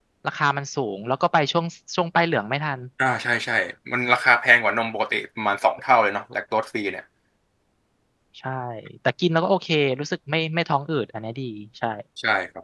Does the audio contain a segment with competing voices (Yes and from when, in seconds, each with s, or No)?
No